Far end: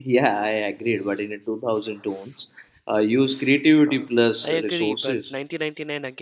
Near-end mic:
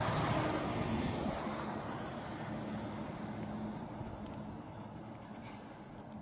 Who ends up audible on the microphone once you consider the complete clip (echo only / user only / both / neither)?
neither